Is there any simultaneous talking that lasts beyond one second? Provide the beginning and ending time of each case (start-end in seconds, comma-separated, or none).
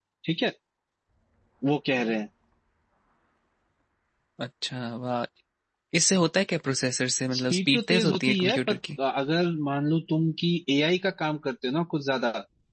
7.3-8.8